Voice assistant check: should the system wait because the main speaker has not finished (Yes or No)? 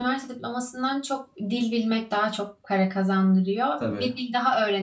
Yes